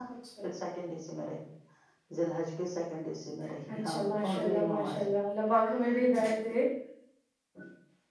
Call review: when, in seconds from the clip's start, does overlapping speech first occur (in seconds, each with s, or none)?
3.7 s